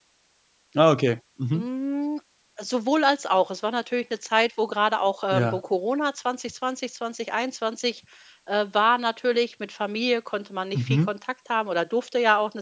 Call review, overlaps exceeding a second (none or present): none